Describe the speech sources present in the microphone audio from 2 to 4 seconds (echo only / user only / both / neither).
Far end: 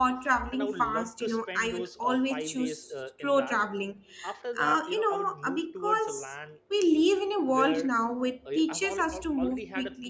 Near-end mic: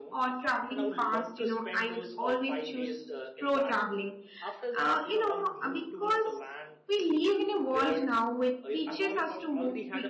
echo only